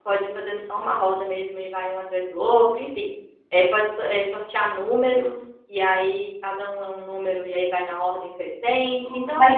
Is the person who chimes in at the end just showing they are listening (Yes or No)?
No